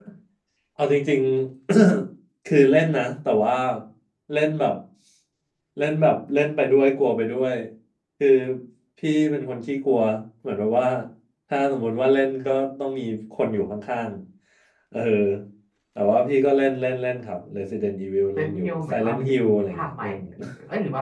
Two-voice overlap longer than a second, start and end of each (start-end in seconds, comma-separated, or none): 18.4-20.0